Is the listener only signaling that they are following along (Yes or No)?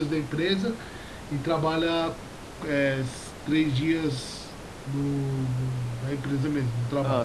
Yes